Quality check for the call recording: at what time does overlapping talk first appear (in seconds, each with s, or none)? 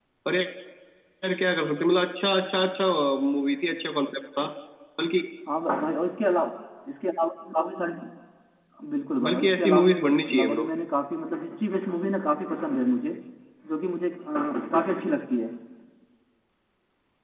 9.2 s